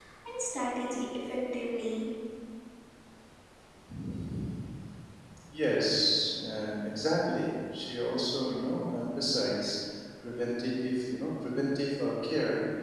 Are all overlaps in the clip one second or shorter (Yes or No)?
Yes